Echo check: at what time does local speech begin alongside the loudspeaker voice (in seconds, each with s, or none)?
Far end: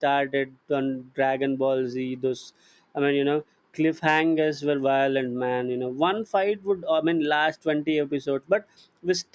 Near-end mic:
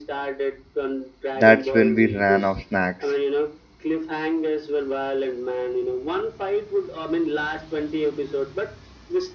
1.4 s